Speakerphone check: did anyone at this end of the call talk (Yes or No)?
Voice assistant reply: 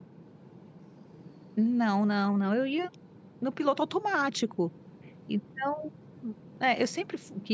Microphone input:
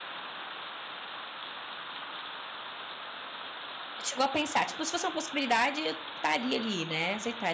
Yes